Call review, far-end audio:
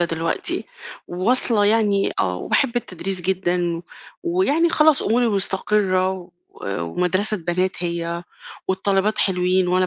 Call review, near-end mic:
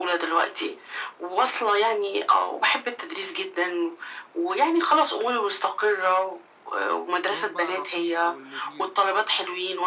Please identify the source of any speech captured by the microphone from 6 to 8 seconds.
both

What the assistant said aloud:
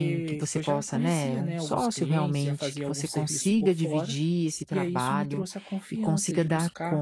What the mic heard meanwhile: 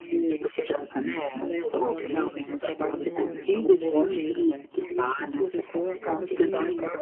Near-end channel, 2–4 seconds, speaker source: both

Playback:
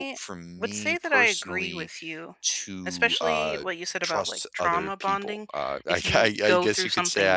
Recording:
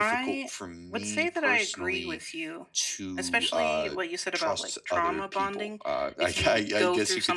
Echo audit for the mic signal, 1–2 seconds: echo only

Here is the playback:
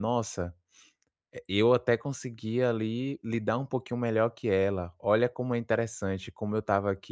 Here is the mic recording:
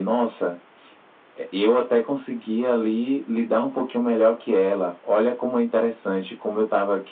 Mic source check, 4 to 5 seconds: echo only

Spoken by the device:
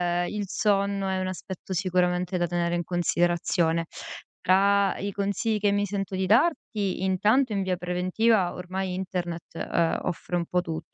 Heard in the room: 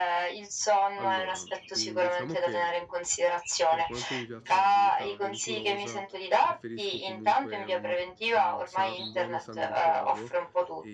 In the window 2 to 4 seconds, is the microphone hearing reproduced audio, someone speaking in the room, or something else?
both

